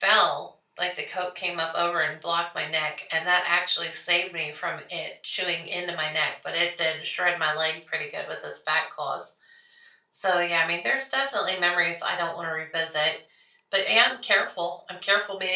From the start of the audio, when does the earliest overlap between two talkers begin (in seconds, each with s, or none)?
none